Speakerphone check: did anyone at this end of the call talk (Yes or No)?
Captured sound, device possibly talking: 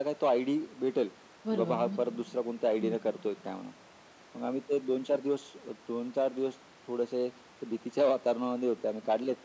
Yes